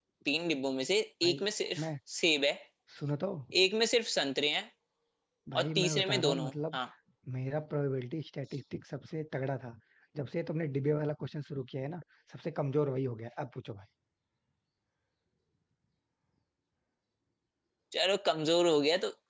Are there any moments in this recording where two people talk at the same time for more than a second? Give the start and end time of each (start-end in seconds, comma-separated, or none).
5.5-6.8